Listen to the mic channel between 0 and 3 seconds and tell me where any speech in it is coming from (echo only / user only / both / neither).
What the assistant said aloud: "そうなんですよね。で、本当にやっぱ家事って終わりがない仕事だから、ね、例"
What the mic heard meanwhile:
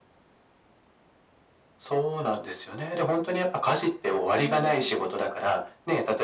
echo only